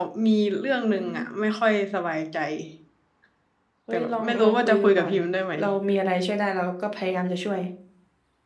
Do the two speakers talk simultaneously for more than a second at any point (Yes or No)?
Yes